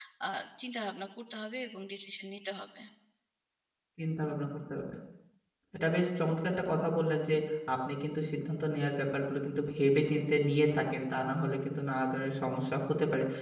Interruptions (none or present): none